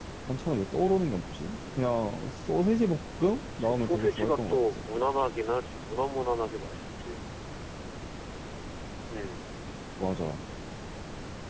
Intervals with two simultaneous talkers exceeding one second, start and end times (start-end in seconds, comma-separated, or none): 3.6-4.8